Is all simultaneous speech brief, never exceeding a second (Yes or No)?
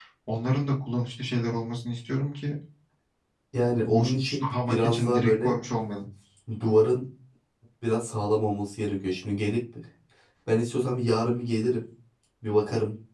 No